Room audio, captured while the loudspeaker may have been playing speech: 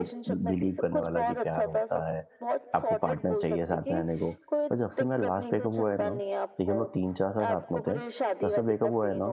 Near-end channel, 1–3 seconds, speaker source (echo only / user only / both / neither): both